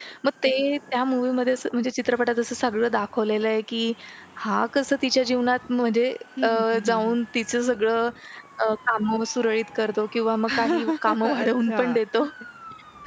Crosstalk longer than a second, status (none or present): present